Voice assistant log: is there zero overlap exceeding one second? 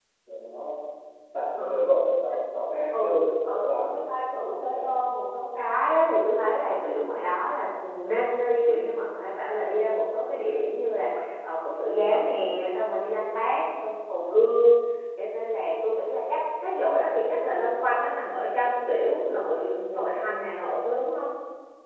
No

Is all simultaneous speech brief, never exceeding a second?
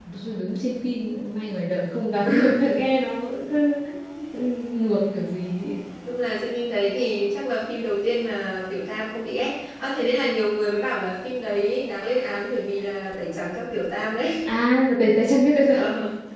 Yes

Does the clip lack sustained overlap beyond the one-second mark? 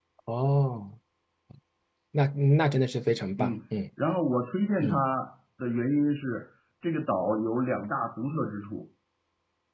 Yes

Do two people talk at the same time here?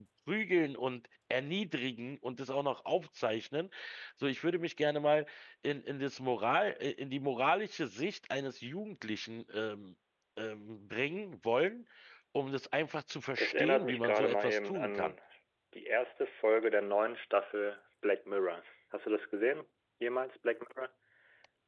Yes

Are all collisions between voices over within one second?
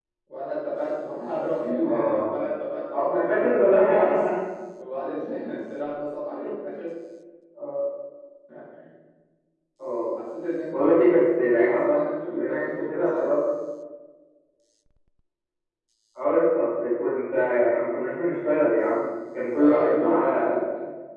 No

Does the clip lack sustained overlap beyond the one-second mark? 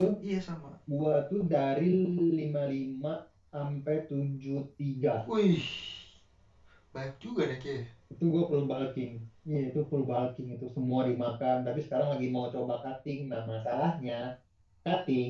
Yes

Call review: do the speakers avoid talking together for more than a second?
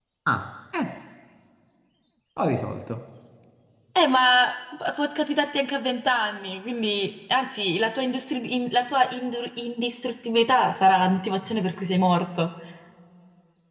Yes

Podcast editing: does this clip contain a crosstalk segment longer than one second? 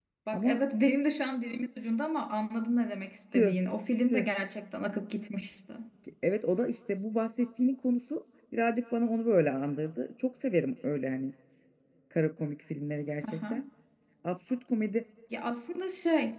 No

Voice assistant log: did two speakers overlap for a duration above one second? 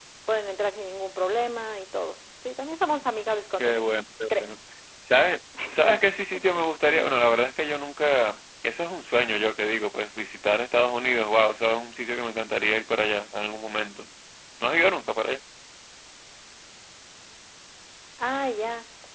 No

